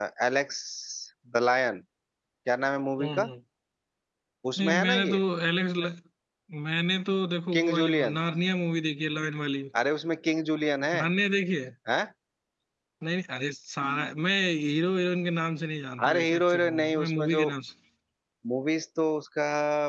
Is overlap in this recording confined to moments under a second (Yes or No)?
No